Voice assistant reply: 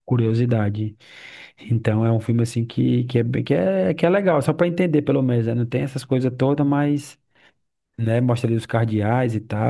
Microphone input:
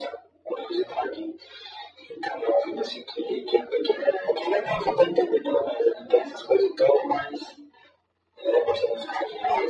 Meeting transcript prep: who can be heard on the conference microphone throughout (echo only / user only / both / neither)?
echo only